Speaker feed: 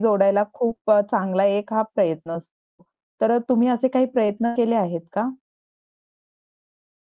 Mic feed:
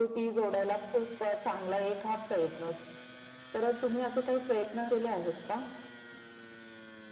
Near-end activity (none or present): none